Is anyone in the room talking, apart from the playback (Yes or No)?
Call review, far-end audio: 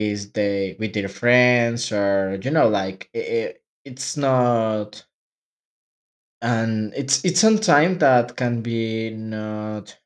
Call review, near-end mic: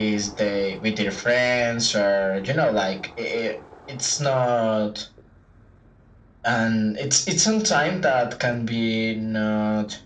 No